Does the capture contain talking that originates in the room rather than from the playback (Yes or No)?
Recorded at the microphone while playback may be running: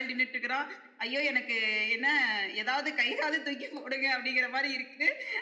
No